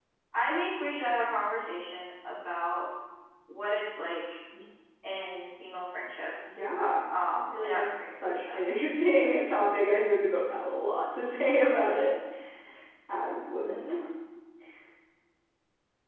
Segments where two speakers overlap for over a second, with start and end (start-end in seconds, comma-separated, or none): 7.4-8.7